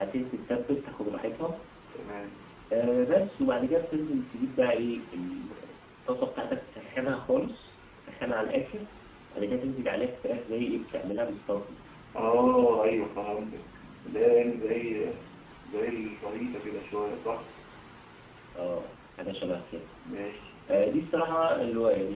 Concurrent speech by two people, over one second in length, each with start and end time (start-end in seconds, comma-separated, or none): none